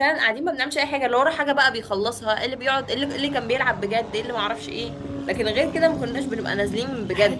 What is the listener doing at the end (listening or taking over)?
taking over